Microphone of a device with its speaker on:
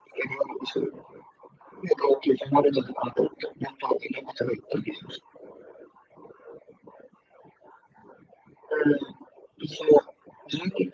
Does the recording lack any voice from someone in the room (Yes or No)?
Yes